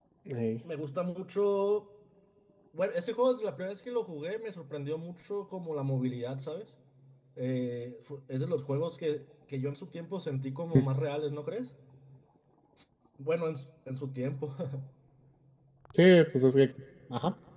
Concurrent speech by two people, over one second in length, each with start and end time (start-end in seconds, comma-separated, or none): none